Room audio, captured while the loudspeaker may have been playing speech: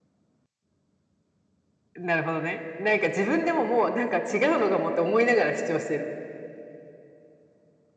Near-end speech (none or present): none